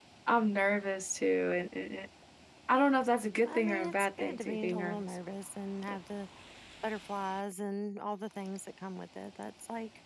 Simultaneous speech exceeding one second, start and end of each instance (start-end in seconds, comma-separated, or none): 3.5-5.2